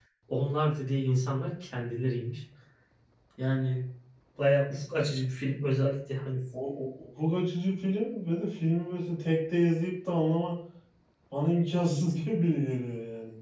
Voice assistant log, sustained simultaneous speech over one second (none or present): none